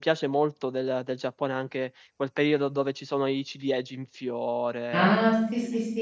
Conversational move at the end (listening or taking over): taking over